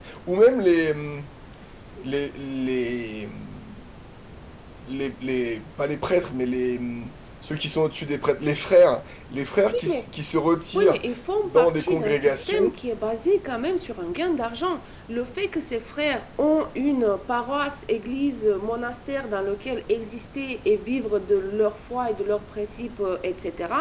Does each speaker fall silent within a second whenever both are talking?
No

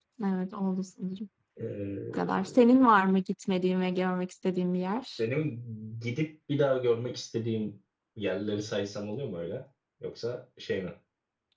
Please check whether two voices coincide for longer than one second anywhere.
No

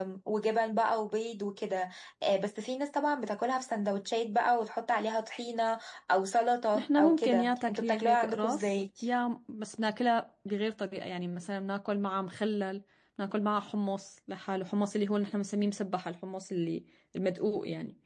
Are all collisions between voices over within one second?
No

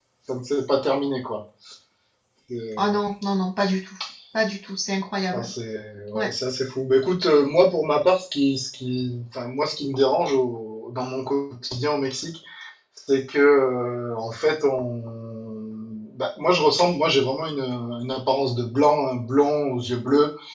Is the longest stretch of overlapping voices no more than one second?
Yes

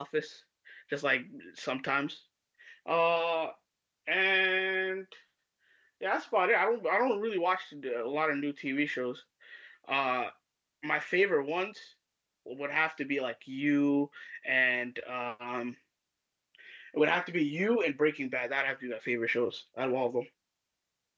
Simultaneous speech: No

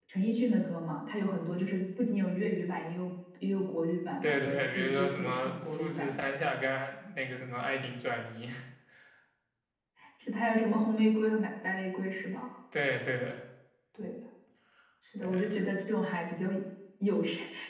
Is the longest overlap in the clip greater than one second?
Yes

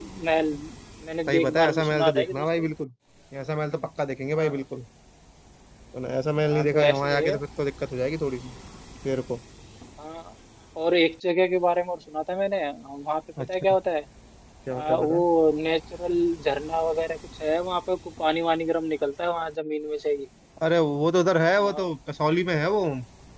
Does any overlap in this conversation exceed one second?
Yes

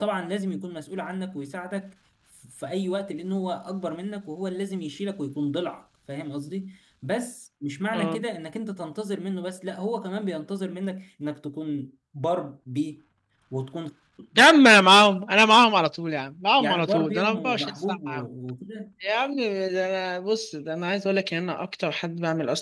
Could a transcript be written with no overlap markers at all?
No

